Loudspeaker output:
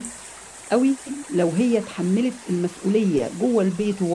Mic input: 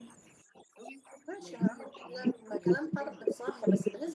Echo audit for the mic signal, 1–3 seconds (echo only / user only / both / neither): both